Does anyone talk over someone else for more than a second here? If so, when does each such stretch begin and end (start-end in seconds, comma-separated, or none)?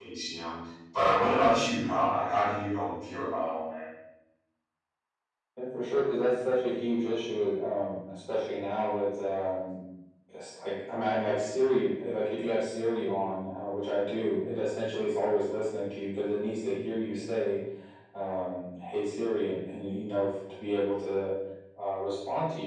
none